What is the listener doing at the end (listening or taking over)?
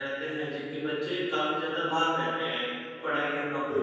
listening